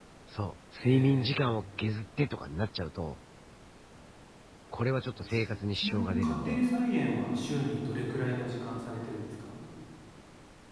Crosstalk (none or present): present